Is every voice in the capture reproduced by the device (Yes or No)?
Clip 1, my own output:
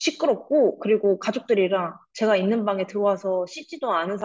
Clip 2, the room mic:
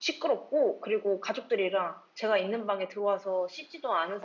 Yes